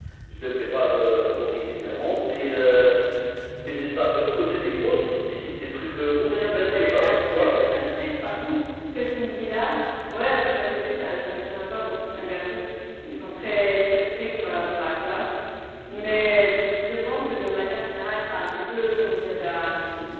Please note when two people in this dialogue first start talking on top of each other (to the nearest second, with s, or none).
6 s